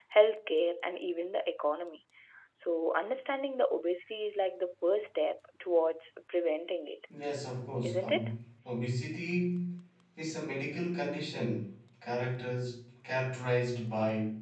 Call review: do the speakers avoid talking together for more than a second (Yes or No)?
Yes